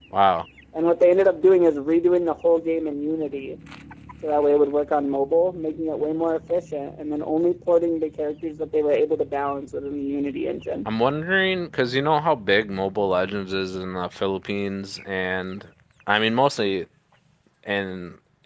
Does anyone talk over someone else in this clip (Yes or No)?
No